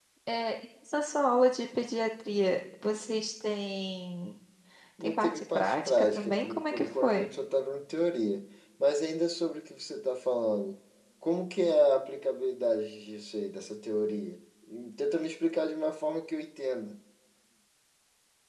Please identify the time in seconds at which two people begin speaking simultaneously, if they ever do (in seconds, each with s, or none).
5.0 s